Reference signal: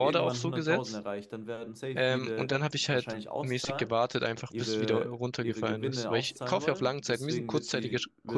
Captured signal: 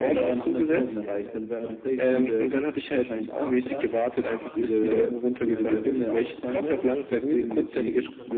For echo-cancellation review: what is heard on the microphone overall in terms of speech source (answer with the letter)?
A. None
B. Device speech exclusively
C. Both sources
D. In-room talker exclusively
C